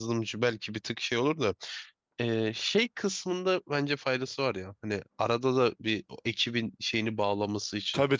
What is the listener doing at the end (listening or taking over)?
taking over